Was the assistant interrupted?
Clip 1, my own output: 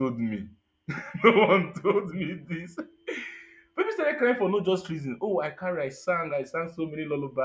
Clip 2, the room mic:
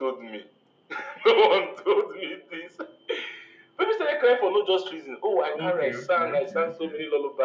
Yes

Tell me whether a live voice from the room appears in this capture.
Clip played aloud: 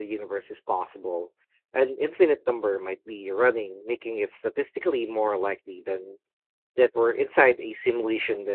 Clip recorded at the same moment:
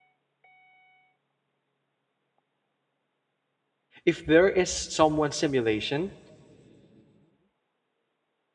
Yes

